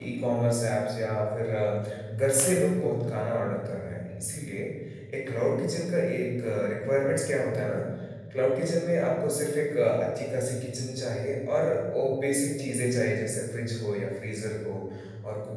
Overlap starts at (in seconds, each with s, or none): none